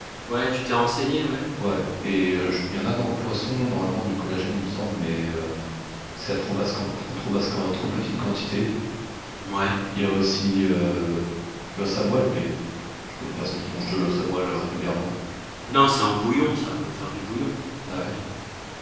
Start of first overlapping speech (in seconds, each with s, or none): none